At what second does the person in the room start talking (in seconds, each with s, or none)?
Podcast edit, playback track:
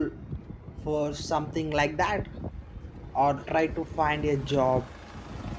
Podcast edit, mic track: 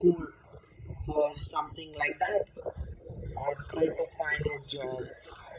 none